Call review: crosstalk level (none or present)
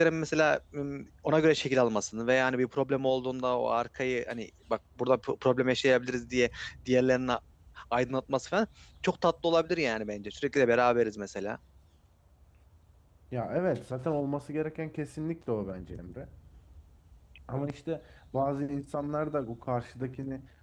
none